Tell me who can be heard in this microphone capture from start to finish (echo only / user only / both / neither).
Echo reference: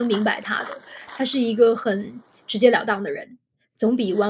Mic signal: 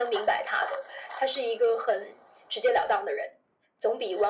echo only